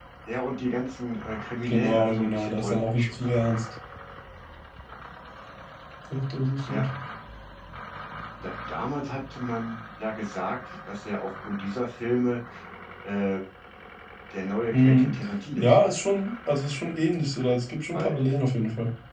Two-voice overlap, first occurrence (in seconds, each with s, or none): 1.7 s